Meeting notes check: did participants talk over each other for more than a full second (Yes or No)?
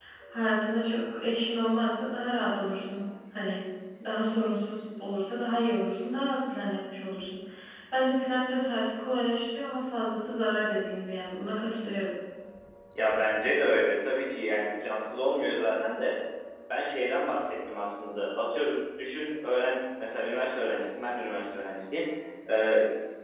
No